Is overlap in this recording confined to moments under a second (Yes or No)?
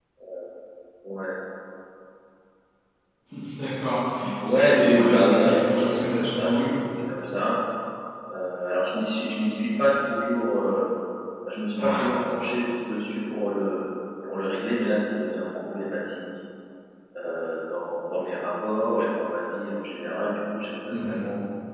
No